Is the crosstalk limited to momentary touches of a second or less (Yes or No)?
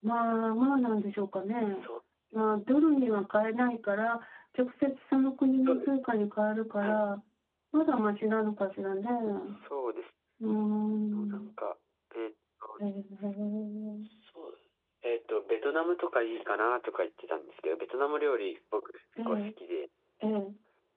Yes